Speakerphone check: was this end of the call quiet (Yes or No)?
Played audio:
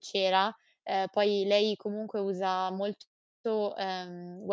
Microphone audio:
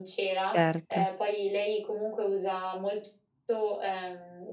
No